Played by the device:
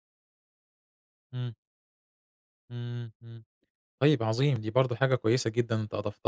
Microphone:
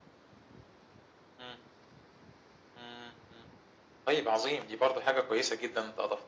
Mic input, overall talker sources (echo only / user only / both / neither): echo only